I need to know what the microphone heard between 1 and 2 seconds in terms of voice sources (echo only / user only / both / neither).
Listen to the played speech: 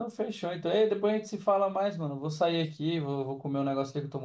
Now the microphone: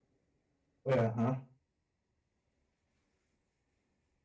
user only